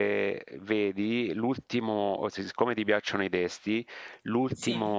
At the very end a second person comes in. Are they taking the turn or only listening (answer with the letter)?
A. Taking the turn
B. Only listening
B